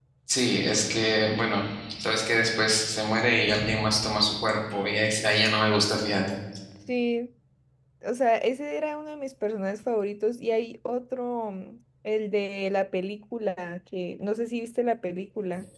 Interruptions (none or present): none